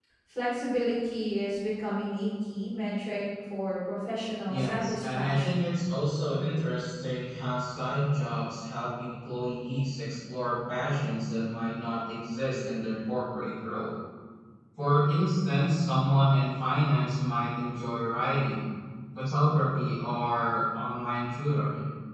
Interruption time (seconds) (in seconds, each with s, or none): 4.5 s